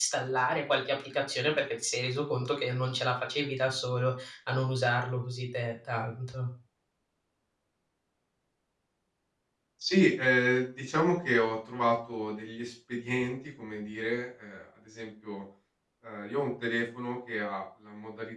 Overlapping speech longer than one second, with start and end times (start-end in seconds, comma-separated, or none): none